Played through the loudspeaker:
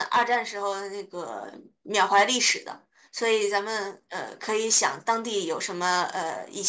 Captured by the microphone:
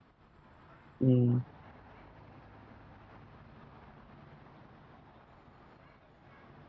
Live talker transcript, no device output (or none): 嗯。